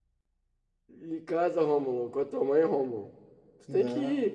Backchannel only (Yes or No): Yes